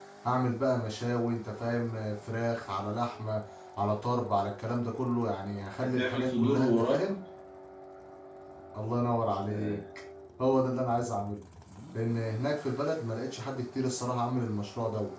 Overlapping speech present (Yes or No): Yes